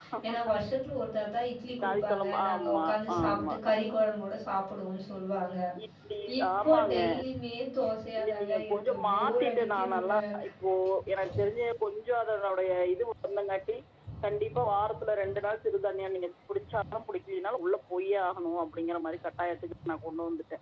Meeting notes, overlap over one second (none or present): present